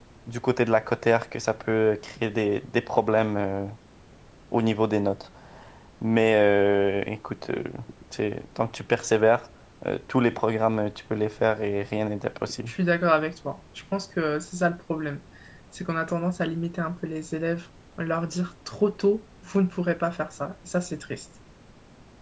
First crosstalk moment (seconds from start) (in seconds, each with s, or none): none